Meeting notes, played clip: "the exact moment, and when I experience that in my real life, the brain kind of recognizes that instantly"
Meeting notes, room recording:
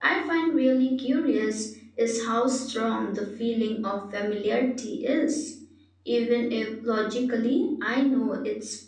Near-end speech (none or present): present